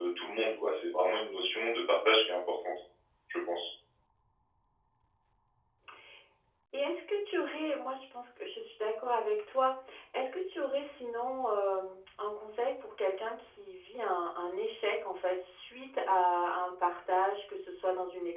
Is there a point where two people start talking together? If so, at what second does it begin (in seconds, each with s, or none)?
none